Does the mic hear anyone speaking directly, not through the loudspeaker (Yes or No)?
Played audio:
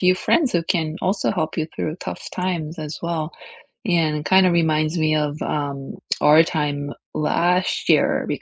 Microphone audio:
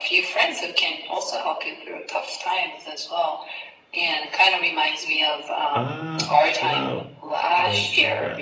Yes